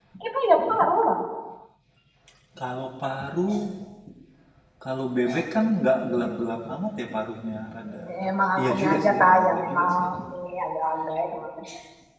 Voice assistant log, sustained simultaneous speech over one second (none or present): present